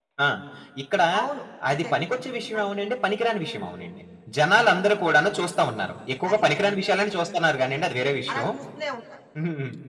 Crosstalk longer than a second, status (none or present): none